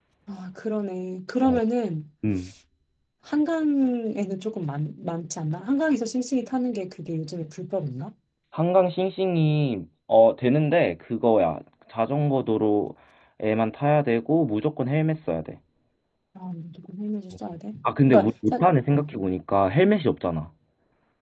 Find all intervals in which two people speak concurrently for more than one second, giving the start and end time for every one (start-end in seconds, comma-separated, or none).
17.8-19.0